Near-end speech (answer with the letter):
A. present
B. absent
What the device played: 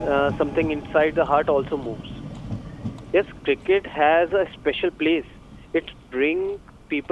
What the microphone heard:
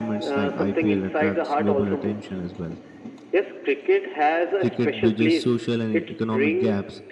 A